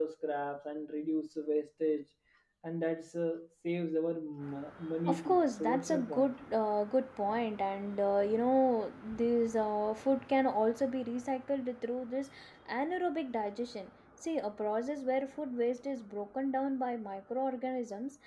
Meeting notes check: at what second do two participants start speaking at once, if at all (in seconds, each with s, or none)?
5.1 s